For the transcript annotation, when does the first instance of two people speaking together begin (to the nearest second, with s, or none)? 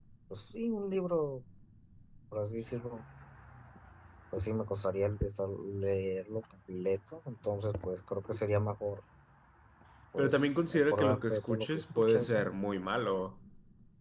10 s